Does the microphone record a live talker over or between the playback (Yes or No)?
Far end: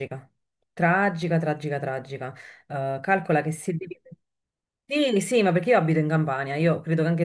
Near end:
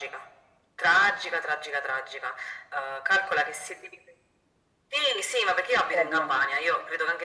Yes